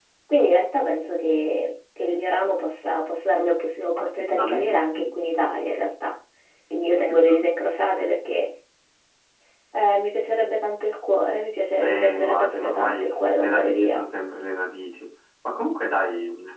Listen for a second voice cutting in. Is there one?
Yes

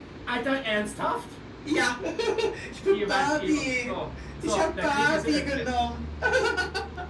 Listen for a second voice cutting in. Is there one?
Yes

